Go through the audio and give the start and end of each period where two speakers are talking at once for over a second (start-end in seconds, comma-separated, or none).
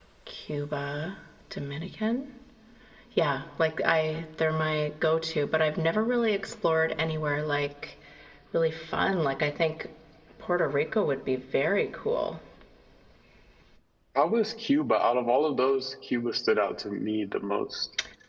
none